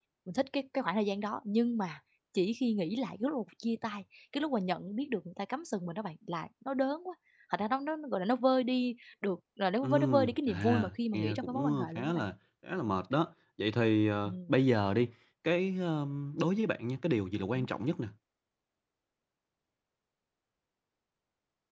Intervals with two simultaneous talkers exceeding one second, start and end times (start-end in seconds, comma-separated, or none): 9.8-12.2